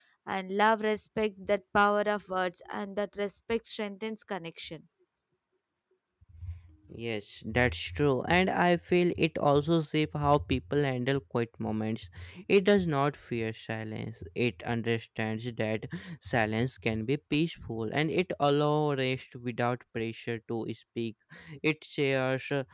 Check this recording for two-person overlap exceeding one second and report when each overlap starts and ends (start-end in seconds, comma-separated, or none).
none